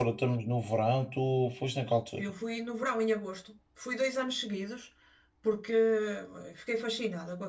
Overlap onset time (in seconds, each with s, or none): none